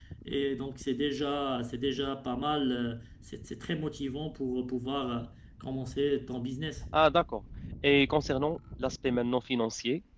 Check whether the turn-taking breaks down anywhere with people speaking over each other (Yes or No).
No